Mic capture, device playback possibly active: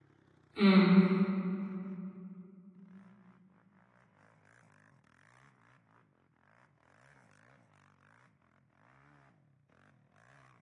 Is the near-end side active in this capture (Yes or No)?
Yes